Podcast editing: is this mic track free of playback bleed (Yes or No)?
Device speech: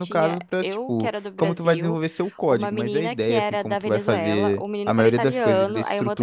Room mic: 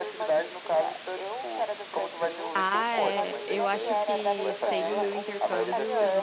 No